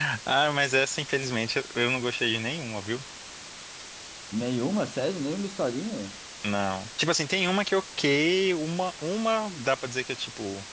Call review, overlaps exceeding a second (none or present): none